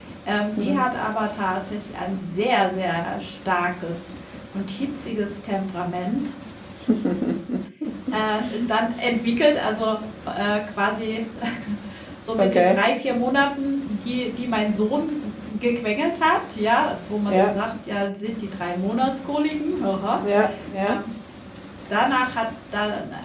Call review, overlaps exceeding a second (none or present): none